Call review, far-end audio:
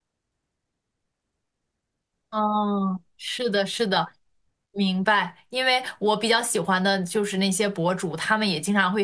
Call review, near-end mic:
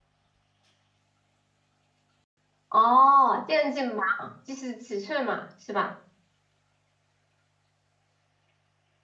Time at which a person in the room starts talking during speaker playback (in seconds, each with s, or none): 2.7 s